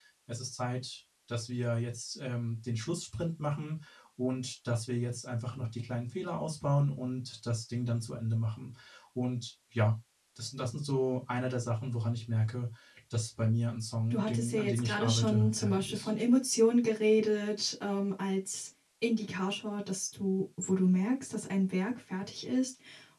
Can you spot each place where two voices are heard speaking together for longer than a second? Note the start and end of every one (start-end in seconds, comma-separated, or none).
14.1-16.1